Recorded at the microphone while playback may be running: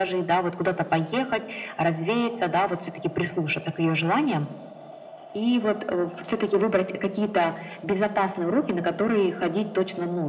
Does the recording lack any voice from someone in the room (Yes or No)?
Yes